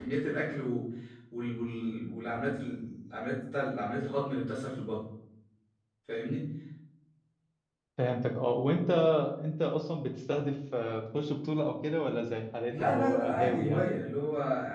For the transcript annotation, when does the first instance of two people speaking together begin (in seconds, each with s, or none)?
12.7 s